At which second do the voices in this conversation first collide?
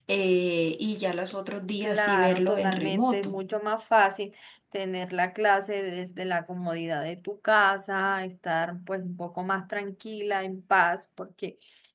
1.8 s

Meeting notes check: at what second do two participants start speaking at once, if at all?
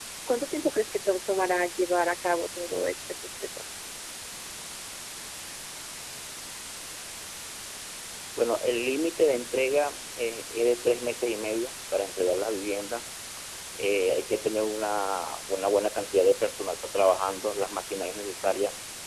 none

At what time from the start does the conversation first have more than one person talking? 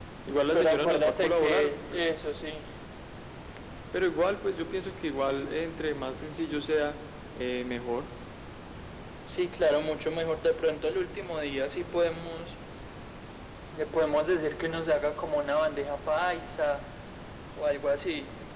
0.5 s

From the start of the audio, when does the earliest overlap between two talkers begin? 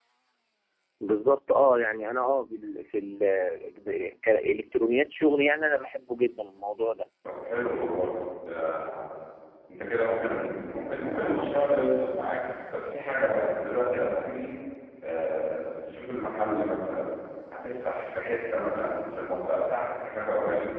none

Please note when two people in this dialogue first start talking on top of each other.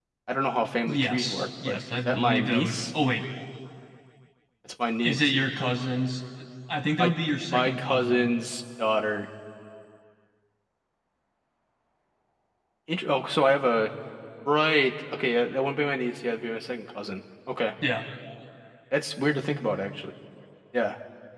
0.9 s

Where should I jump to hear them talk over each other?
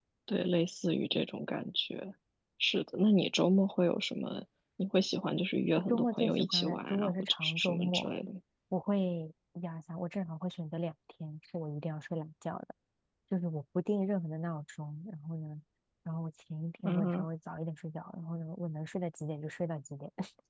5.9 s

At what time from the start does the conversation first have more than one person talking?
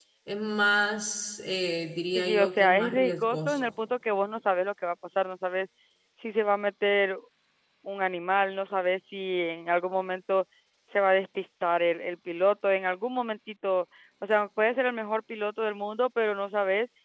2.1 s

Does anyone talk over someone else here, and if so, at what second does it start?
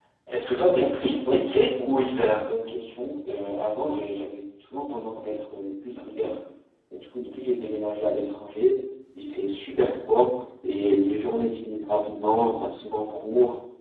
0.7 s

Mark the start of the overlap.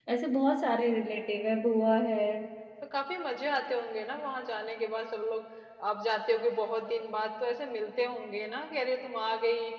none

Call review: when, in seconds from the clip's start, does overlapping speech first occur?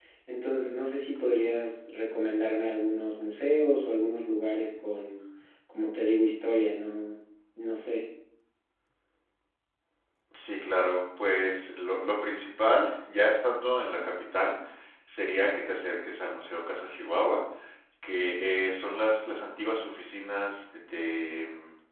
none

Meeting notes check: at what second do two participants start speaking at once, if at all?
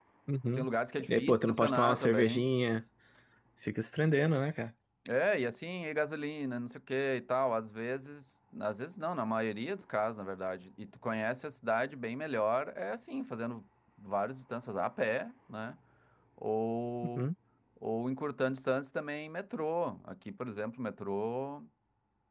1.1 s

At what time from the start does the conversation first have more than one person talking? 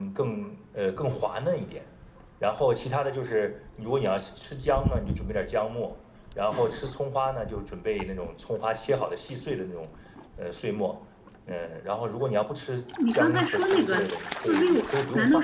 13.0 s

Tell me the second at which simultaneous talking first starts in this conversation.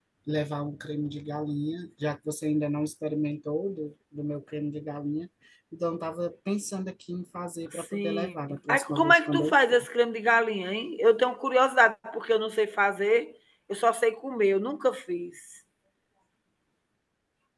7.7 s

